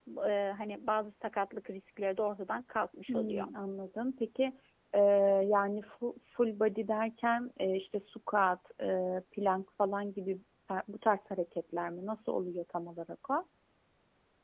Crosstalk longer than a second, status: none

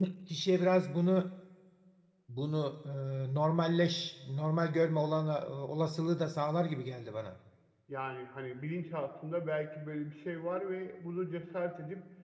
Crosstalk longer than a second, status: none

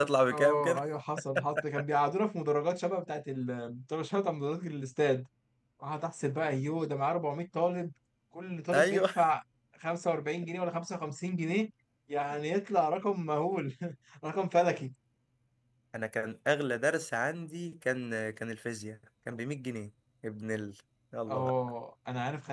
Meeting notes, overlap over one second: none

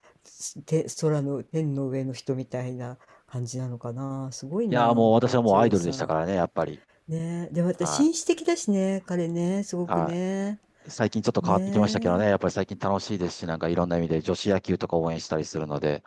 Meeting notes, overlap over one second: present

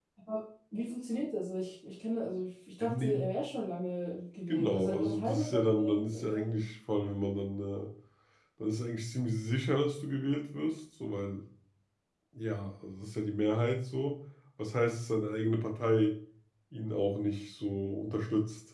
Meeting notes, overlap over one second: present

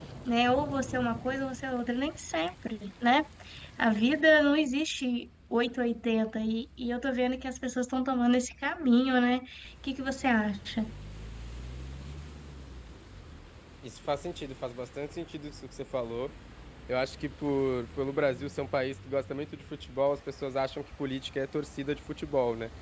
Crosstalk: none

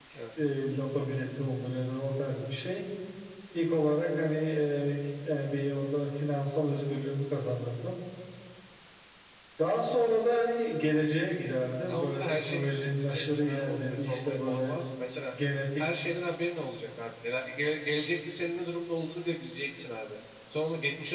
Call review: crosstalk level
present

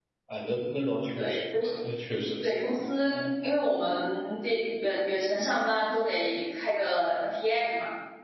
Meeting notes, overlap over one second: none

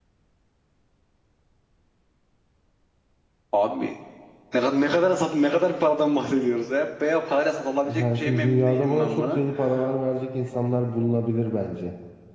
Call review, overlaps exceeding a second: present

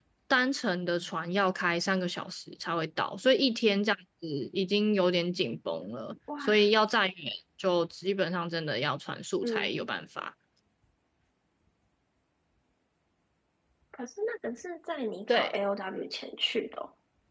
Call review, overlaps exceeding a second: none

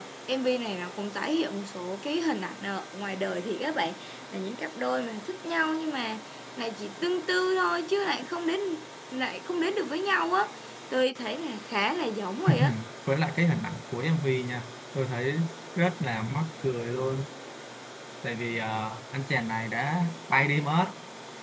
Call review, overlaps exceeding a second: none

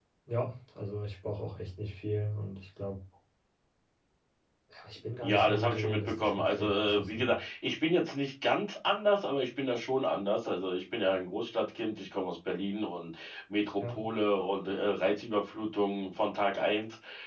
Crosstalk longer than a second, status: present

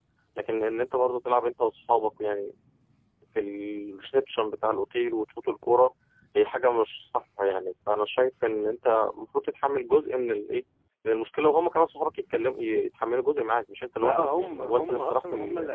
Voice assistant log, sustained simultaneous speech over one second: present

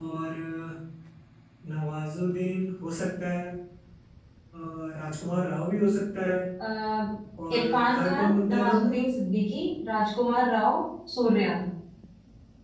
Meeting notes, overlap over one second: present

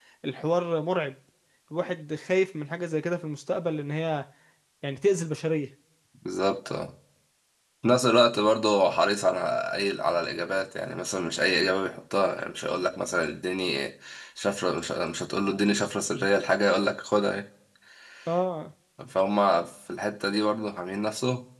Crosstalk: none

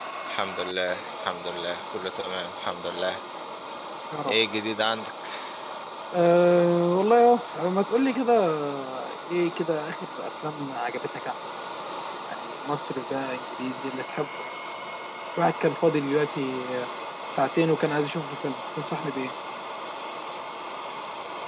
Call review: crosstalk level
none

